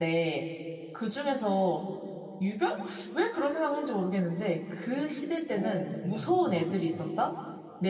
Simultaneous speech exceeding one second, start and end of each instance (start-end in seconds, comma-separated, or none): 5.5-7.0